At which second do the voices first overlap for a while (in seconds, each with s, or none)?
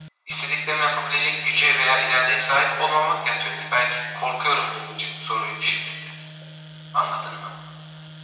none